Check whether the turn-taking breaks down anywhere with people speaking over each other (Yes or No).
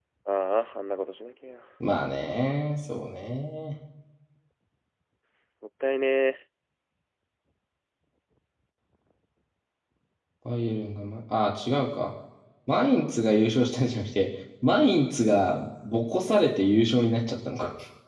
No